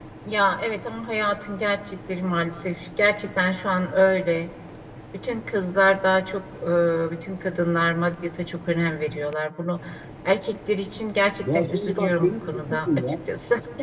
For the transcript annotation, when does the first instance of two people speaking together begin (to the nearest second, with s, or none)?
11 s